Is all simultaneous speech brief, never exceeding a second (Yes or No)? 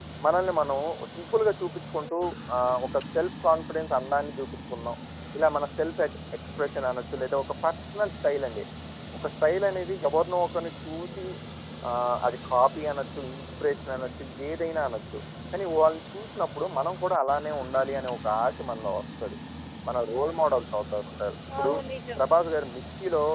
Yes